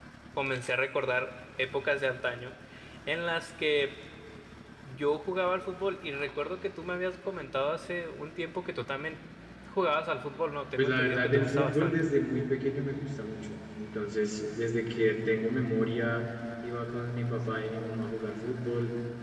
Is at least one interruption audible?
Yes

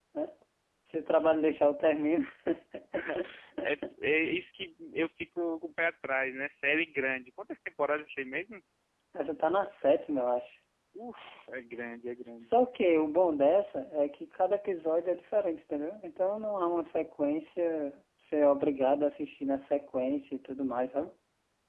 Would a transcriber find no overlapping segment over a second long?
Yes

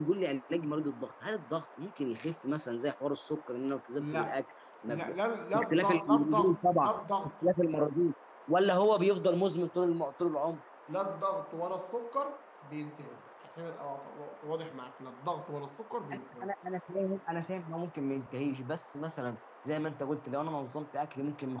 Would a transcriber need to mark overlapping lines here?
Yes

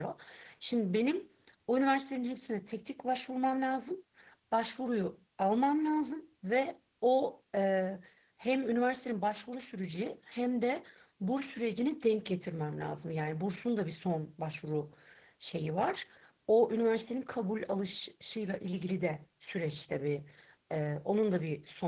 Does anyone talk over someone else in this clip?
No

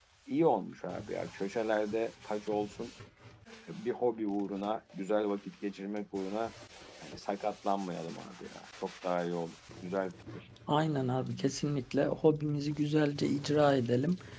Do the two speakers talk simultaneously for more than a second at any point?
No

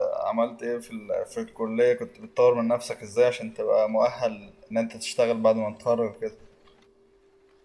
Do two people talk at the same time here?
No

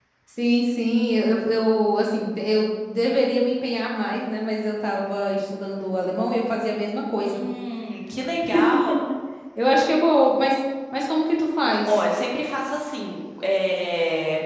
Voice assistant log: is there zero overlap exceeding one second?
Yes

